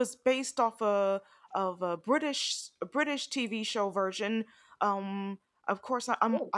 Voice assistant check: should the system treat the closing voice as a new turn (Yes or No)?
No